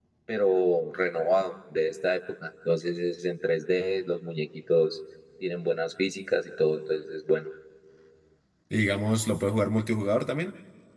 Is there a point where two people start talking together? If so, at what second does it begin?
none

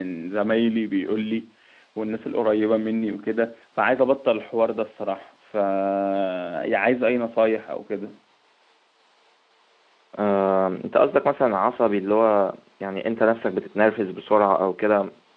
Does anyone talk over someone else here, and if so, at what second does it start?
none

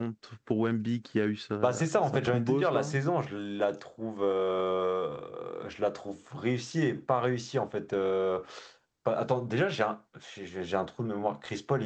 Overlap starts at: 1.6 s

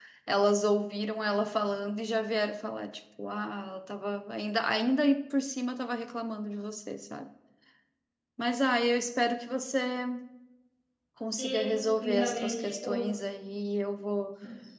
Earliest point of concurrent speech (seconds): 11.4 s

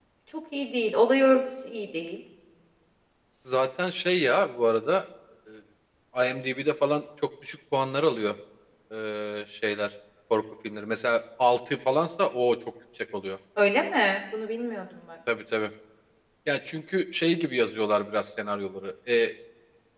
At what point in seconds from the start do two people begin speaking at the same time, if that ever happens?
none

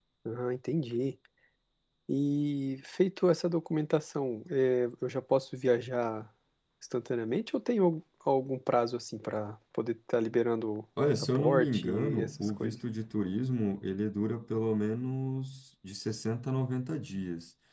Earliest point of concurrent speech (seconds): 11.0 s

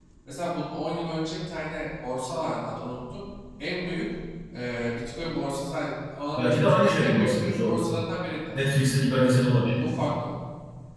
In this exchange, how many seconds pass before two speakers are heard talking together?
6.4 s

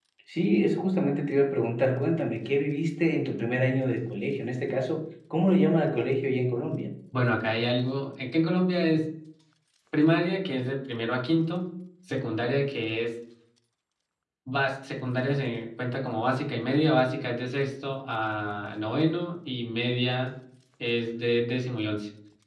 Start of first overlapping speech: none

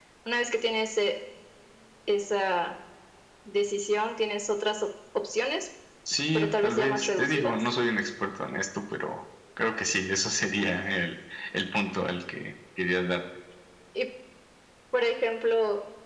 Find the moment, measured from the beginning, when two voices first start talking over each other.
6.3 s

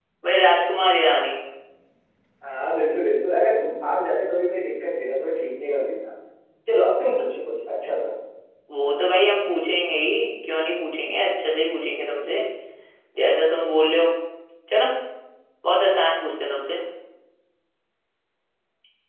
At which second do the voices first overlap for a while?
none

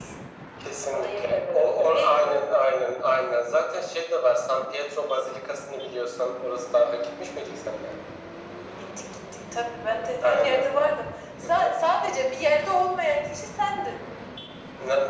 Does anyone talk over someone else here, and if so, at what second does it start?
0.9 s

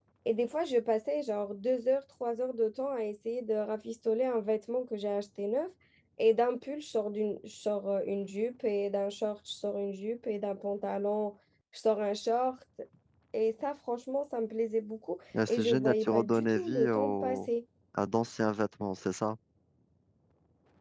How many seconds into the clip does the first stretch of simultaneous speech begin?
15.3 s

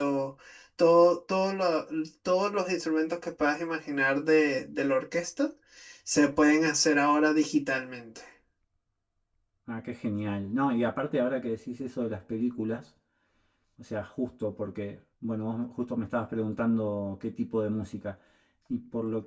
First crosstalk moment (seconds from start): none

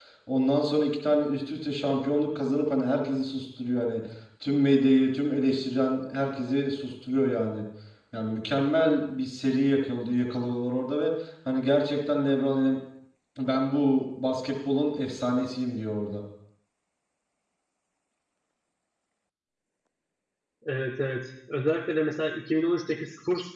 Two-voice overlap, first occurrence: none

